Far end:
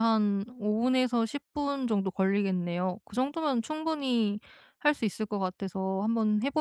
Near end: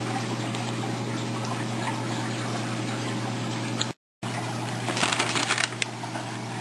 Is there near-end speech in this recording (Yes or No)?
No